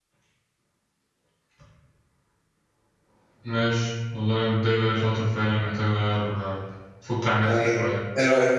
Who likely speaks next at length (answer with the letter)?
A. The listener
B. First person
A